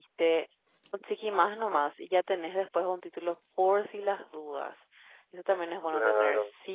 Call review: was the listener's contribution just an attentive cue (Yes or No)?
Yes